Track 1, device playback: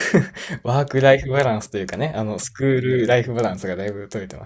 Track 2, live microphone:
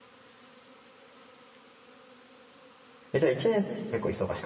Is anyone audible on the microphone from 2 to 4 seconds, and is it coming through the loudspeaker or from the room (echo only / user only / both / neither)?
user only